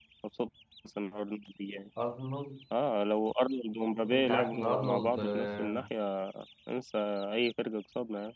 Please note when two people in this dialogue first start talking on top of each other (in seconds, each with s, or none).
4.1 s